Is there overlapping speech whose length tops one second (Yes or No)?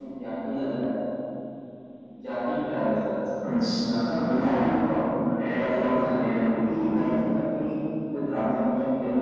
Yes